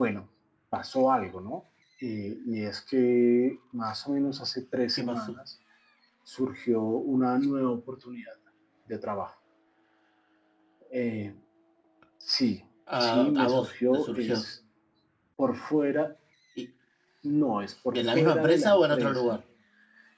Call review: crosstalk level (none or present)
present